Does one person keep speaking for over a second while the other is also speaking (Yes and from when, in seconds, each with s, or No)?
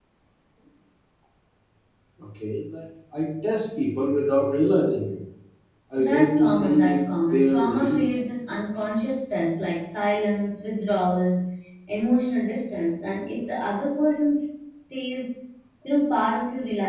Yes, from 6.0 s